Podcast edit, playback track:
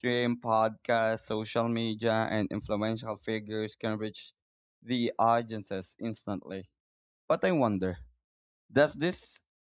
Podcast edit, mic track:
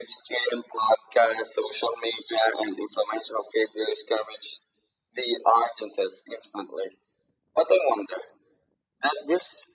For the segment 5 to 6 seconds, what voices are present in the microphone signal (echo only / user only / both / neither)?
echo only